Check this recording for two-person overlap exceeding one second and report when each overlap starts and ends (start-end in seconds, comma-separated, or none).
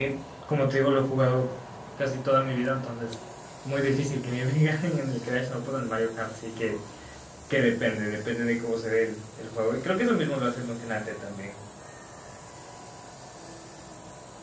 none